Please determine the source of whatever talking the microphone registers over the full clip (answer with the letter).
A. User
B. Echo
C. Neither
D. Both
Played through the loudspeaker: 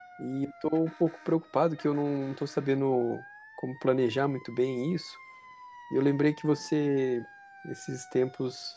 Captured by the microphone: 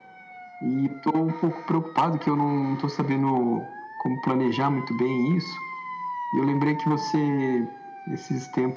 B